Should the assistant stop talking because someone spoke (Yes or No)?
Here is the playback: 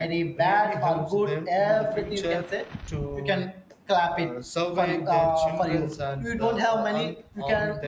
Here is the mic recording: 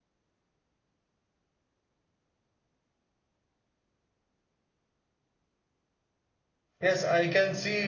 Yes